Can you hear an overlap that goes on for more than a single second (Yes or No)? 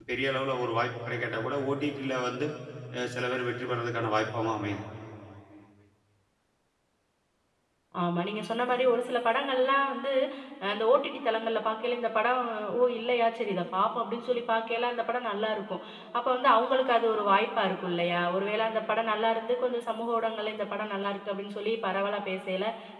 No